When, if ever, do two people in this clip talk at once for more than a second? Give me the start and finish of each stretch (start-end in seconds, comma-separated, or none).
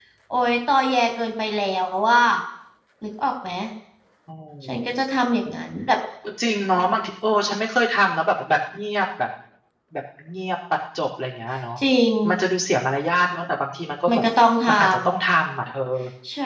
none